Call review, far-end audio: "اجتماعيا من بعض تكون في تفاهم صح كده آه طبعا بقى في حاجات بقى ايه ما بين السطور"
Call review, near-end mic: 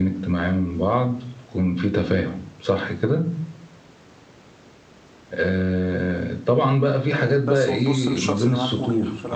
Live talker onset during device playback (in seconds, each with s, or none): 7.1 s